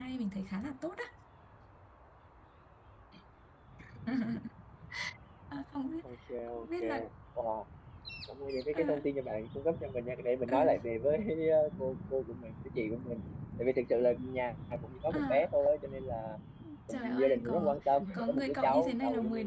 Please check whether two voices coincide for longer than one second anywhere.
Yes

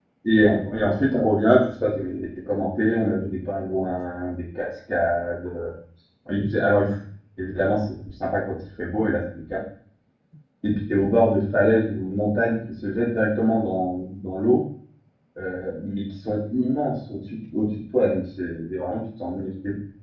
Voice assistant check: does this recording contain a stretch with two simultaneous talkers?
No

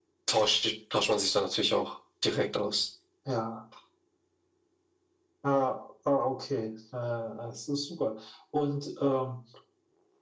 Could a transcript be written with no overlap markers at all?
Yes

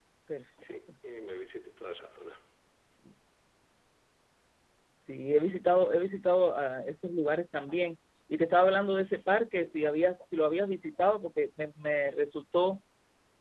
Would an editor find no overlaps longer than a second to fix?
Yes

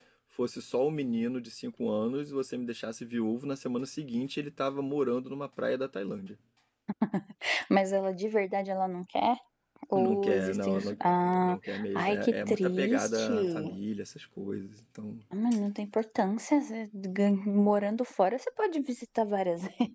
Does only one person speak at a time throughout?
No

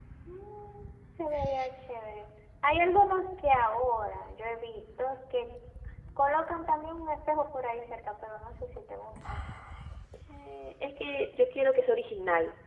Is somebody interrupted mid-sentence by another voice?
No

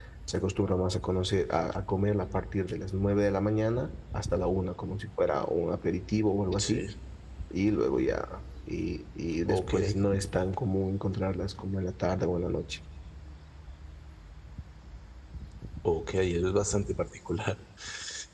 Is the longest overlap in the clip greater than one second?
No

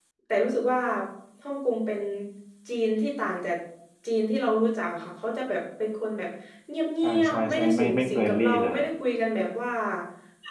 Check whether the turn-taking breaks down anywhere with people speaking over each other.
Yes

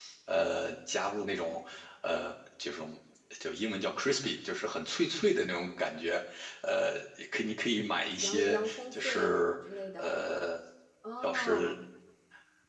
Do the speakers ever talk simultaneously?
Yes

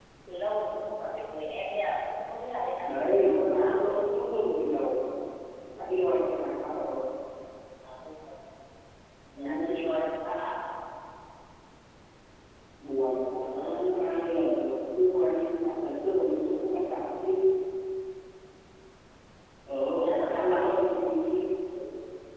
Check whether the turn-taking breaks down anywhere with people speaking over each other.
Yes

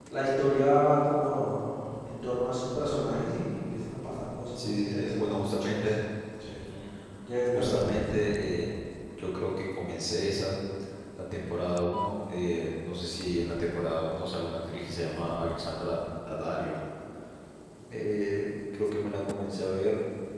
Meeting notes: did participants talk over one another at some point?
Yes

